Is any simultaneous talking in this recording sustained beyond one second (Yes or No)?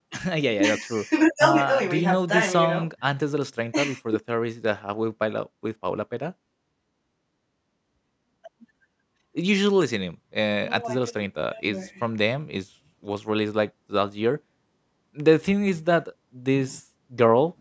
Yes